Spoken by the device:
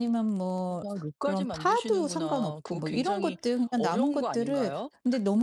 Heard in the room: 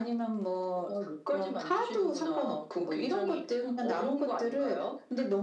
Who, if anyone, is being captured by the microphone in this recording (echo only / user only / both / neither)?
echo only